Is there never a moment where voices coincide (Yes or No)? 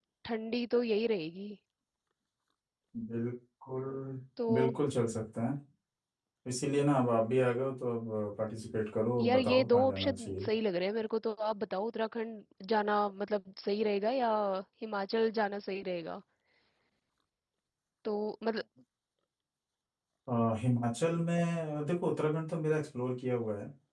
No